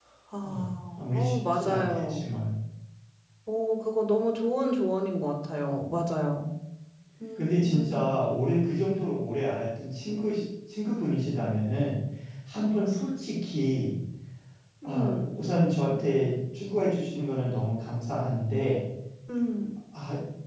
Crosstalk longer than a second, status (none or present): present